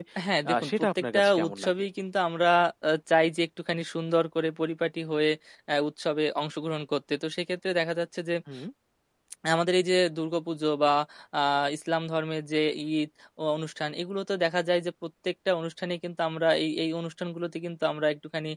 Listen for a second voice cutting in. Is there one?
Yes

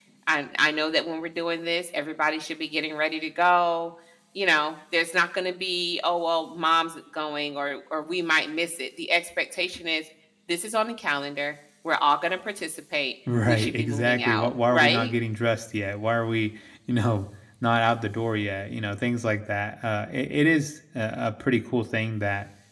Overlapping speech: Yes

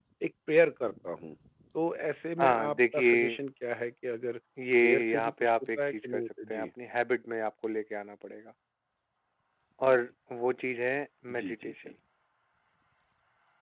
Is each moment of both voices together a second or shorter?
No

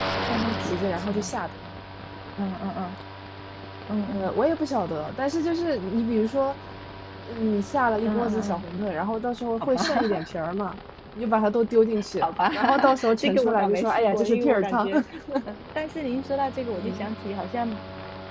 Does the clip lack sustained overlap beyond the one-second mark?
No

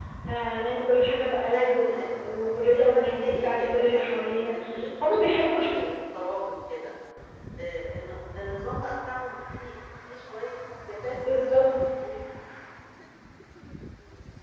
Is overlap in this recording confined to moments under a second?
No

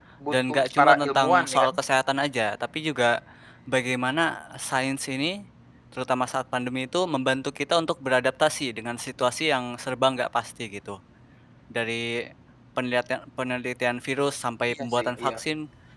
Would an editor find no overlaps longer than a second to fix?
No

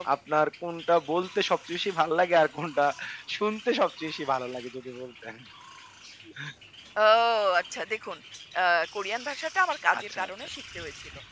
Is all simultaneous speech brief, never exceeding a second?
Yes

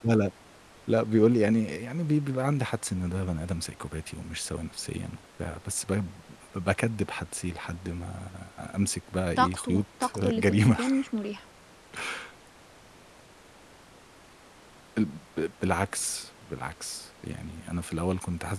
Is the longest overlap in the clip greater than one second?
Yes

